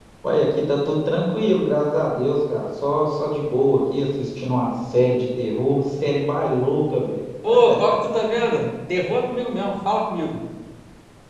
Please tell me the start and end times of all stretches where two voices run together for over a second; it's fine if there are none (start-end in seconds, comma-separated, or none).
none